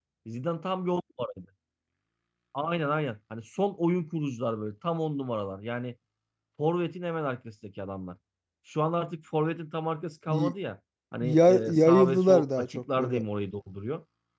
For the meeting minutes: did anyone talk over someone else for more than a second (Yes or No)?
Yes